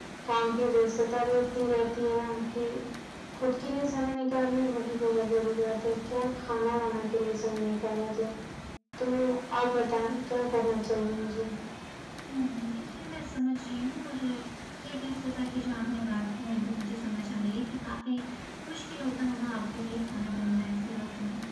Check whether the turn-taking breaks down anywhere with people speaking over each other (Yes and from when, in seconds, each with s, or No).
No